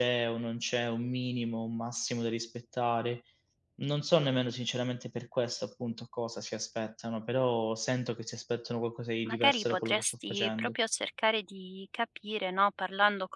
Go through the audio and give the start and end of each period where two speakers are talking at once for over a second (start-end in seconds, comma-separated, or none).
9.3-10.8